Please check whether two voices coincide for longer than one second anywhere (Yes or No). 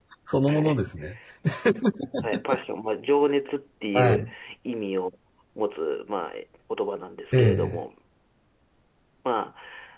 No